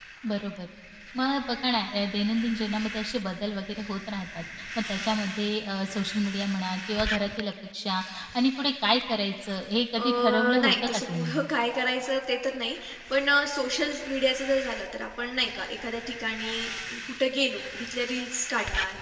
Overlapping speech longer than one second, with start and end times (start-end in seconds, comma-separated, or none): 10.0-11.4